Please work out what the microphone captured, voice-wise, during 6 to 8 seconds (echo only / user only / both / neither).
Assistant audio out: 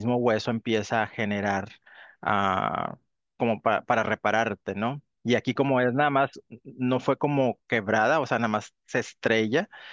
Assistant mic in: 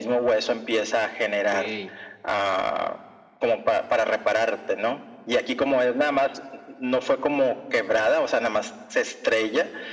echo only